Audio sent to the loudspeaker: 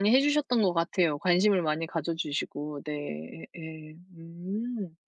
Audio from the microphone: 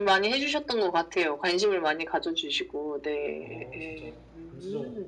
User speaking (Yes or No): Yes